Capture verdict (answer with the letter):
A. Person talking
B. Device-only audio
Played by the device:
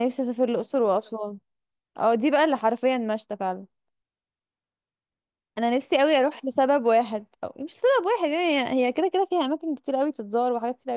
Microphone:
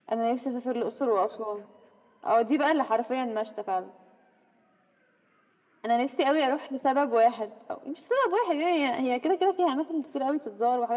B